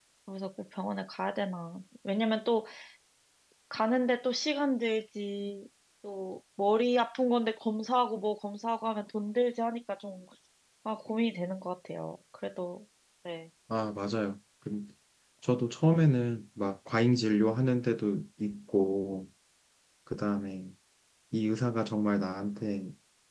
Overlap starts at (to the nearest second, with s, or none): none